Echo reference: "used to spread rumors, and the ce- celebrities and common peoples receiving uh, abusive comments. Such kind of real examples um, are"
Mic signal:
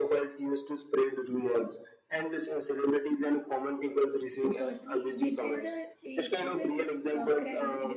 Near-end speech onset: 4.4 s

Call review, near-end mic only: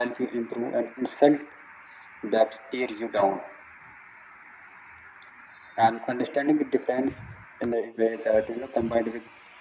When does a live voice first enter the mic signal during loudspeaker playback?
none

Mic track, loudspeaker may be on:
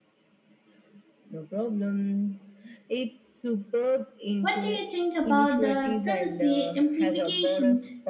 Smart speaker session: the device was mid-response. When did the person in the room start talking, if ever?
4.4 s

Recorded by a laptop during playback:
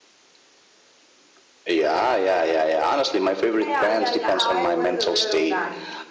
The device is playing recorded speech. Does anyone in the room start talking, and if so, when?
3.6 s

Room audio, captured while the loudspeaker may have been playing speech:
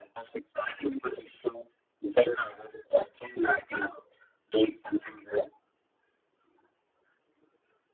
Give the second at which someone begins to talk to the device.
none

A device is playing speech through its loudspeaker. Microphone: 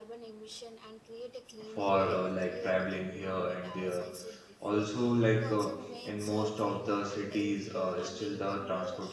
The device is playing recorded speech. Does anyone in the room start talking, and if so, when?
1.6 s

